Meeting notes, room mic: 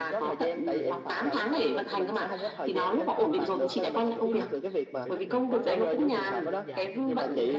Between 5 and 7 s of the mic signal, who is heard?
both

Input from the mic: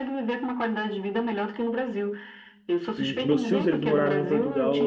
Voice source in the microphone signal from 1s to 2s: echo only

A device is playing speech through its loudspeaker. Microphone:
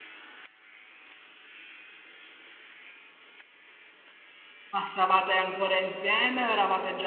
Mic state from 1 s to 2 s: neither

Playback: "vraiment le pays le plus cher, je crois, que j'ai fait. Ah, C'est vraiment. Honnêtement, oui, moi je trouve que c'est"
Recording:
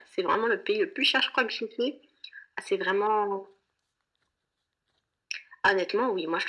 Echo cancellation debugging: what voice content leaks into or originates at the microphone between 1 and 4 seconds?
echo only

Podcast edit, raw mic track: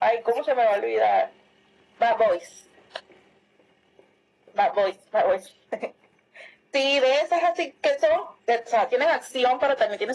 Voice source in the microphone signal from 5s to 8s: echo only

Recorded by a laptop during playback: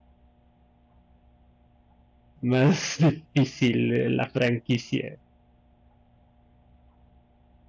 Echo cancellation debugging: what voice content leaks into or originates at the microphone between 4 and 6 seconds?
user only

